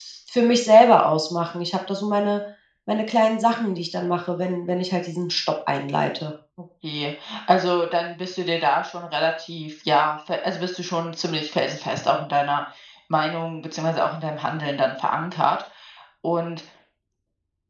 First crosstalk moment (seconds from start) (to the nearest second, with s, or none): none